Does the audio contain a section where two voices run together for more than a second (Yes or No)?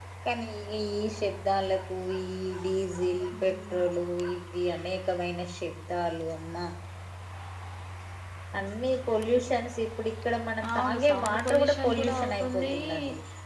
Yes